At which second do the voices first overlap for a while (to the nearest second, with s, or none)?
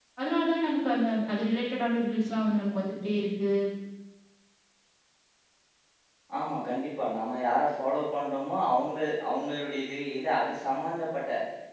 none